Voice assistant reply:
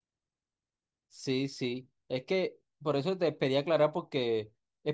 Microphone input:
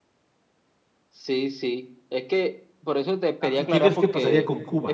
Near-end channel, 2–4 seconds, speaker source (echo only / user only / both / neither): both